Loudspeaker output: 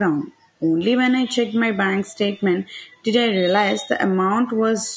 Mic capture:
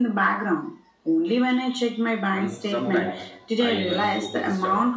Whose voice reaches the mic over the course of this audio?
both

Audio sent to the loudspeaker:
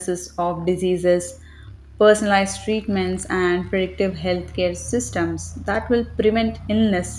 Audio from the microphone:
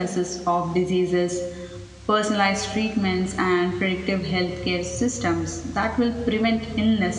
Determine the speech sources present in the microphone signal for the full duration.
echo only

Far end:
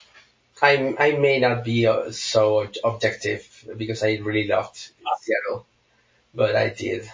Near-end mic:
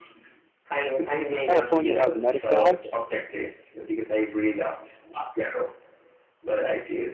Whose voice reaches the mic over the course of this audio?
both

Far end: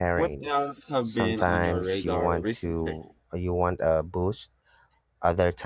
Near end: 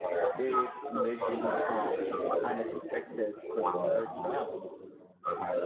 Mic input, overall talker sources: both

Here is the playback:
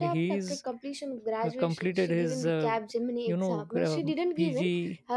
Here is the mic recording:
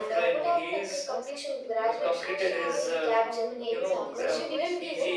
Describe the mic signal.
both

